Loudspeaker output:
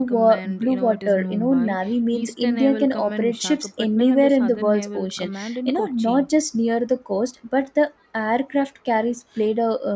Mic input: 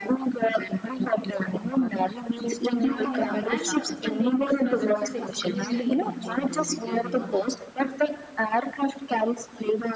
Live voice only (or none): Yeah, yeah, and uh, the Navy's presence is extremely important because you know,